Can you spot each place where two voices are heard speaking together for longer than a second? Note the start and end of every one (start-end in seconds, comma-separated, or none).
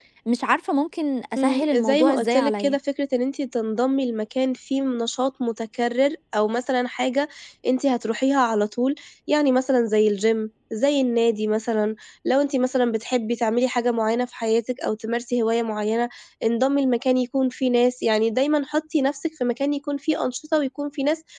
1.4-2.8